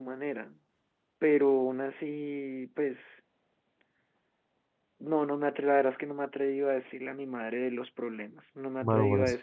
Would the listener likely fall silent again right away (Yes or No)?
No